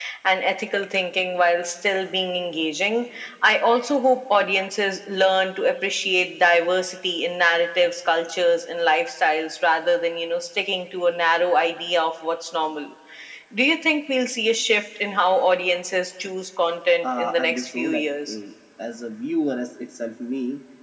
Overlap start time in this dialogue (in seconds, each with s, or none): 17.0 s